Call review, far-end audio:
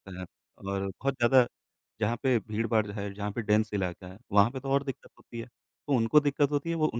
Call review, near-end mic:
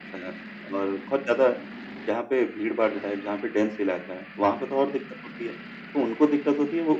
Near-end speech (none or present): none